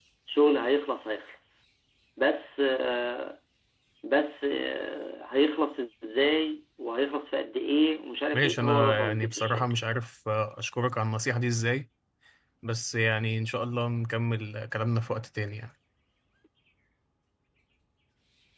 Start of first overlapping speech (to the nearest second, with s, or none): 8 s